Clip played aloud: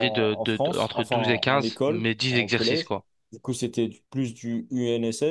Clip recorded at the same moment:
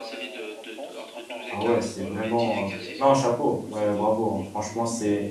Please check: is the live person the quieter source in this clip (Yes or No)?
No